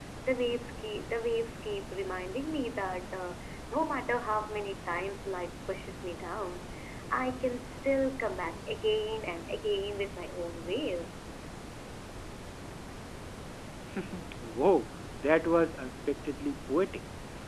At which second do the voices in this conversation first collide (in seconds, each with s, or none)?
none